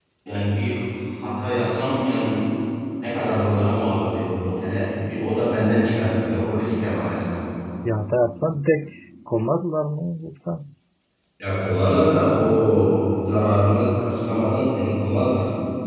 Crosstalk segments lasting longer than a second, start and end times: none

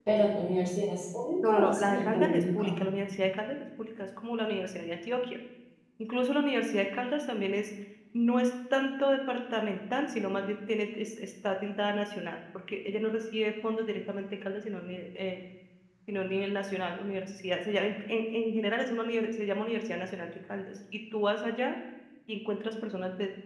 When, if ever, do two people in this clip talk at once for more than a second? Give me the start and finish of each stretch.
1.4-2.8

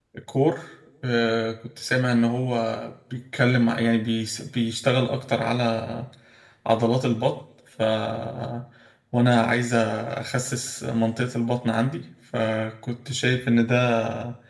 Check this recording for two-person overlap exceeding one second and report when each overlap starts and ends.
none

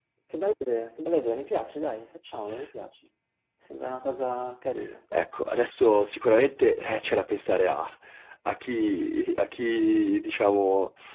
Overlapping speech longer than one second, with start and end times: none

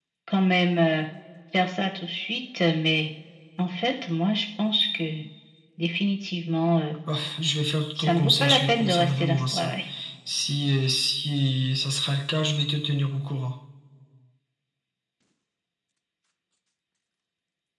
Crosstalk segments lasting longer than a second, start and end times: 8.0-9.7

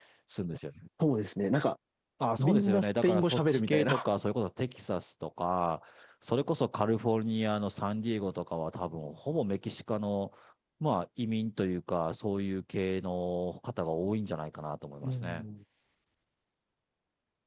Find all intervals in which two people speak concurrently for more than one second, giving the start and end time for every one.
2.4-4.0

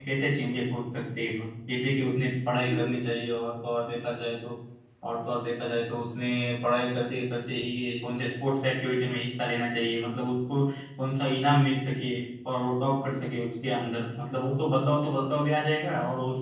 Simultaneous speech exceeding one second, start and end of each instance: none

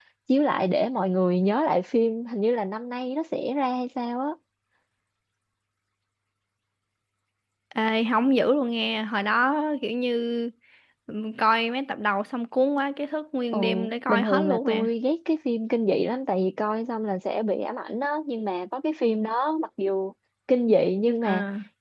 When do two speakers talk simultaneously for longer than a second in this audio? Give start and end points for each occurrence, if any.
13.5-14.9

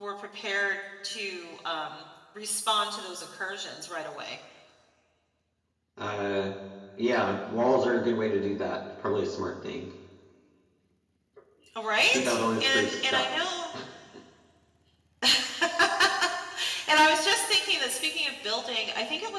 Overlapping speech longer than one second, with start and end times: 12.1-13.5

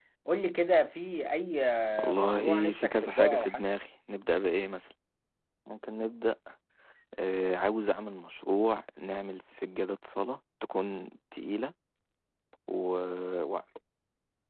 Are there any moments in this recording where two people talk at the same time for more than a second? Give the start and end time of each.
2.1-3.7

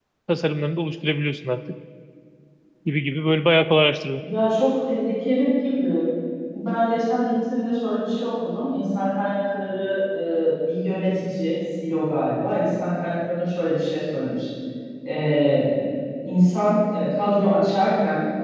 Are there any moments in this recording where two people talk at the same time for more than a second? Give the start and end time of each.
none

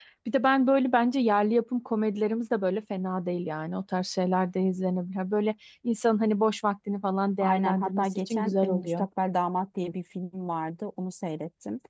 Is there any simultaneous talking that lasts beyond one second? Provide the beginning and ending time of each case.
7.4-9.1

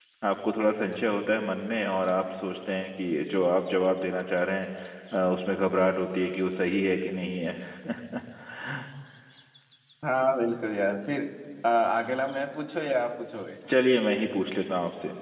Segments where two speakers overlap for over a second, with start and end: none

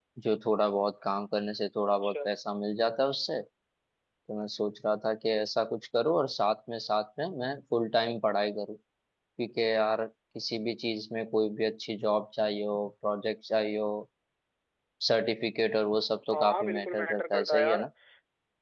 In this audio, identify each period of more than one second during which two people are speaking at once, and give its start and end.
16.3-17.9

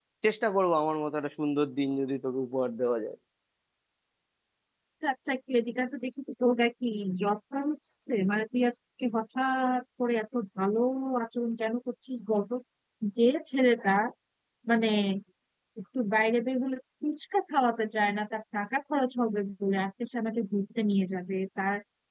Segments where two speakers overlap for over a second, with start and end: none

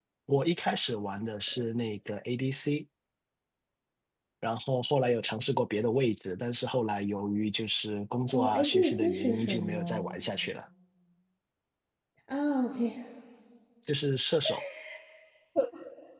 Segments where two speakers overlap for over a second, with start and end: 8.2-10.2

